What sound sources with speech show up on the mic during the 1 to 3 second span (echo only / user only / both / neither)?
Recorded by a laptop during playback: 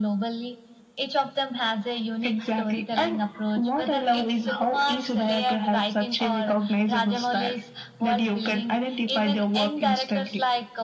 echo only